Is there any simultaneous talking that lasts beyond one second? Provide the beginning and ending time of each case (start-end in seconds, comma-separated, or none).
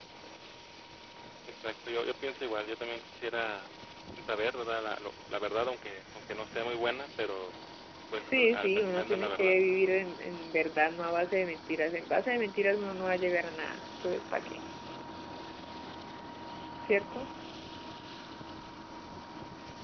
8.2-9.5